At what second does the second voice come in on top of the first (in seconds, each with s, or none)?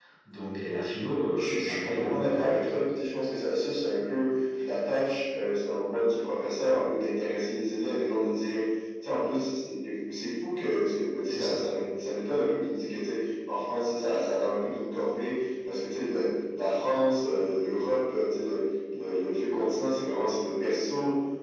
1.4 s